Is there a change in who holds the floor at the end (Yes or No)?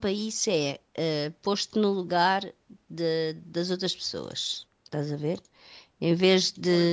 Yes